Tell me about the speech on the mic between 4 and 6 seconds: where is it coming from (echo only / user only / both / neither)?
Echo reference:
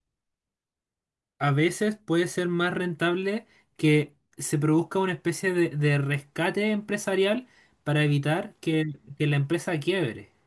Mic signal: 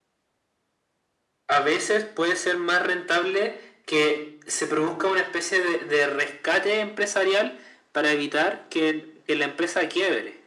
echo only